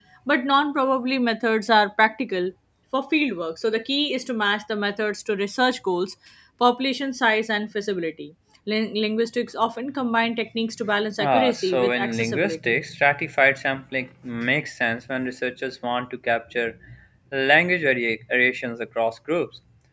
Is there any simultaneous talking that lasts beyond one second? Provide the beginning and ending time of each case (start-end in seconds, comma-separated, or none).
11.2-12.7